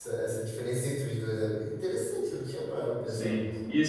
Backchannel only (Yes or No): No